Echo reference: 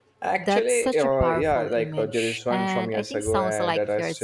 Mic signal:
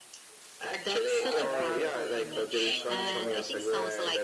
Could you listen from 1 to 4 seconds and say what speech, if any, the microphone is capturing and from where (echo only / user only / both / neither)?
both